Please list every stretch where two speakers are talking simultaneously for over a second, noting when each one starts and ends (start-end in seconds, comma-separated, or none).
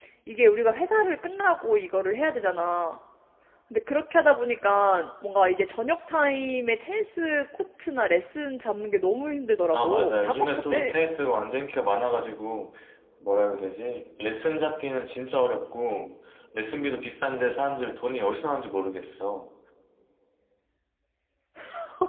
9.7-10.9